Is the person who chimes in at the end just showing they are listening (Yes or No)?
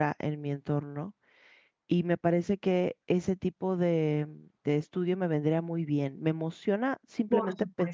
No